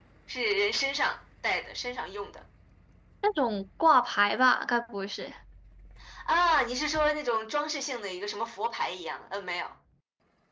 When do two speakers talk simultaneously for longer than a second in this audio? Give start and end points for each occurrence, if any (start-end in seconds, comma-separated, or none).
none